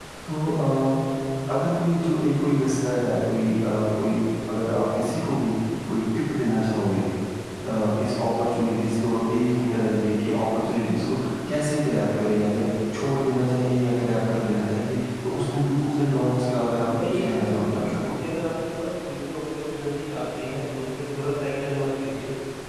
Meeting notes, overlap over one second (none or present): present